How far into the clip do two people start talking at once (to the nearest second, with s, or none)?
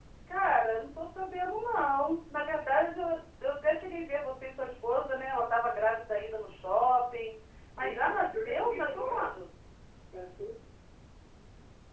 8 s